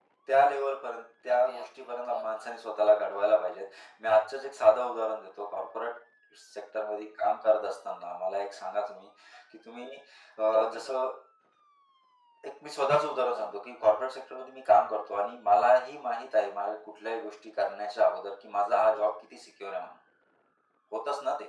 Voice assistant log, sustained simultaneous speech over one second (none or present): present